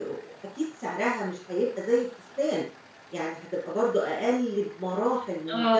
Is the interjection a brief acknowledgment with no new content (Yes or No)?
No